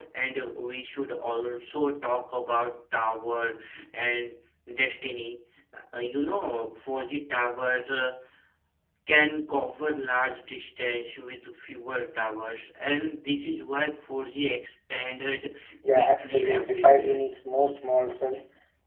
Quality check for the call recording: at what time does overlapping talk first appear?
15.9 s

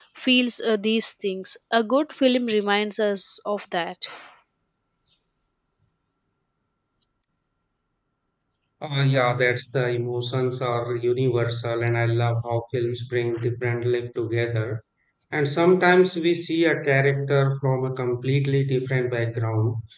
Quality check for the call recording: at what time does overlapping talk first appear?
none

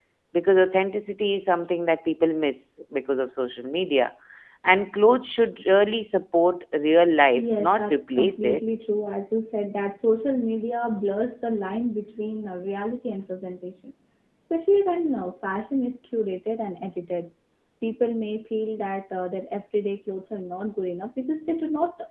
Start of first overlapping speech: 7.4 s

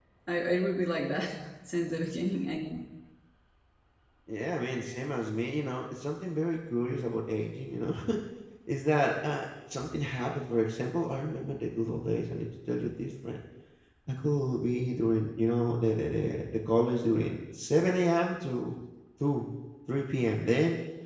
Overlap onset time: none

